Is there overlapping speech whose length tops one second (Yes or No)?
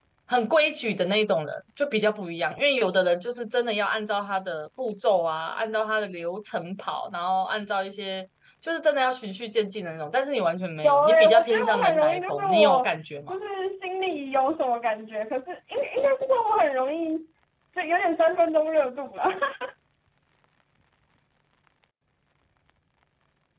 Yes